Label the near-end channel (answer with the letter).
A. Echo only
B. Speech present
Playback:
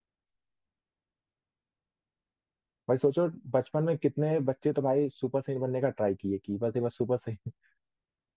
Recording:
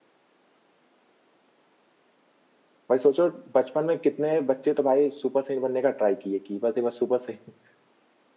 A